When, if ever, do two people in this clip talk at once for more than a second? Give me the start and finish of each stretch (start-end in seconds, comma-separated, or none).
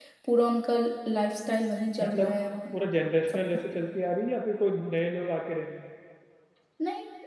none